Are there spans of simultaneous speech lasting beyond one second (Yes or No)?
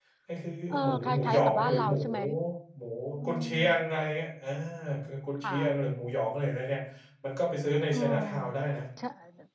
Yes